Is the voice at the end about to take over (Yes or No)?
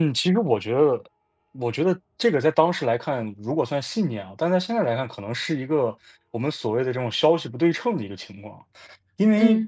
No